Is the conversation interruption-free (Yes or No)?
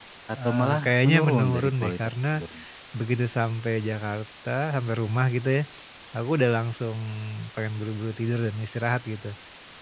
No